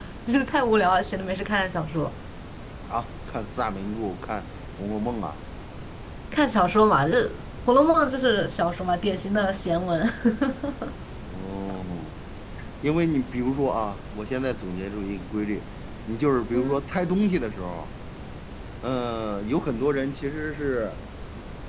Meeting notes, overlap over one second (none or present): none